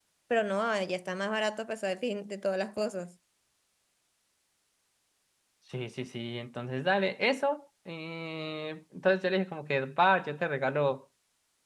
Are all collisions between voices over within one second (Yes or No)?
Yes